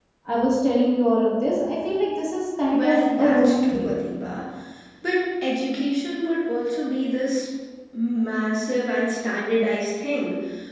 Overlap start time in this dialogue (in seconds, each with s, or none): 2.7 s